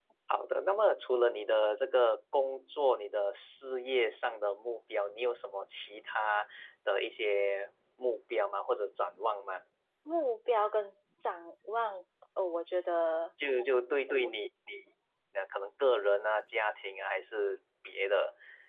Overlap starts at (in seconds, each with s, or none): none